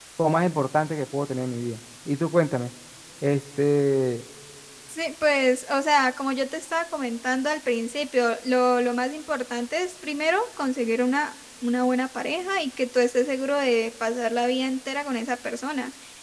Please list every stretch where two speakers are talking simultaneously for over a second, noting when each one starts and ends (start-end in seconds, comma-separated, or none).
none